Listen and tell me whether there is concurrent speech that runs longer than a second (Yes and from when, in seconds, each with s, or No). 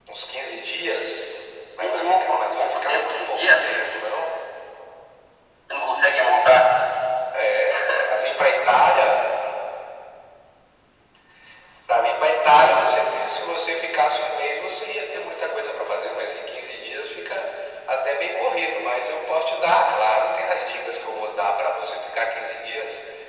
Yes, from 1.8 s